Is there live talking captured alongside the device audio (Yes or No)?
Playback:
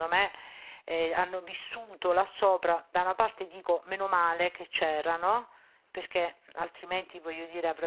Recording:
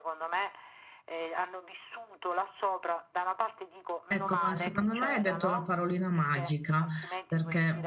Yes